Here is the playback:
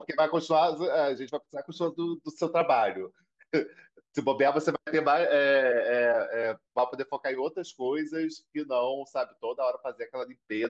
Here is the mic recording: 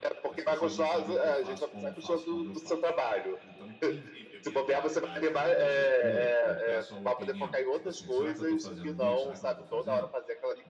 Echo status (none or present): present